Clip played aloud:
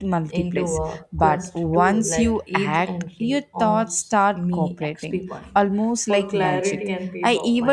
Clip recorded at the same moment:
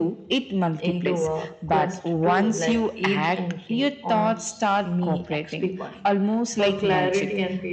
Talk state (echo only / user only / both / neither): echo only